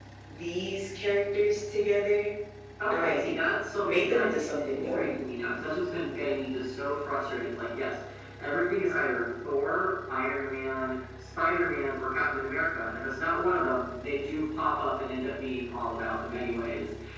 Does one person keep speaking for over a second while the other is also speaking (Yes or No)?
Yes